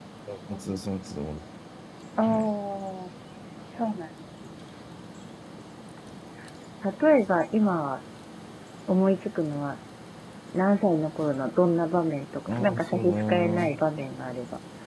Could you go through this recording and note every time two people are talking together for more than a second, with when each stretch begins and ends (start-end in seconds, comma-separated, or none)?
12.5-13.8